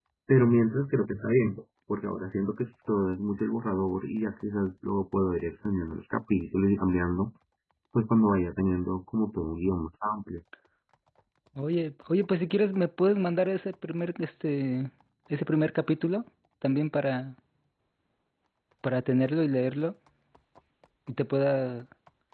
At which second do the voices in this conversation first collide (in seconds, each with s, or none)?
none